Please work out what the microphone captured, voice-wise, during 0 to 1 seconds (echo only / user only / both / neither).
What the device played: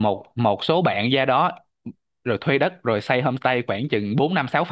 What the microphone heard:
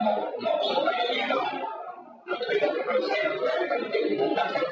echo only